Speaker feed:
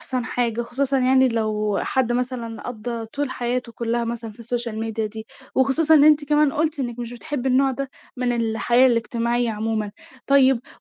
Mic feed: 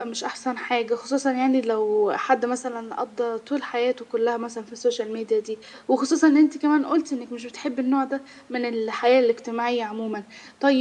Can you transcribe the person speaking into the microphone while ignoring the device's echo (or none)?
none